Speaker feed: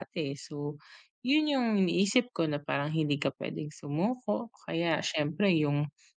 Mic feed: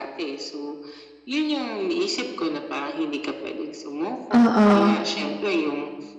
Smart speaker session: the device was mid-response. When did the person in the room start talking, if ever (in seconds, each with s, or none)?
4.3 s